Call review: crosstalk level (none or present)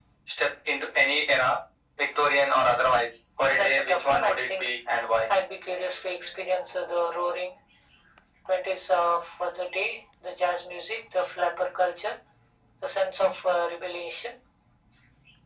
present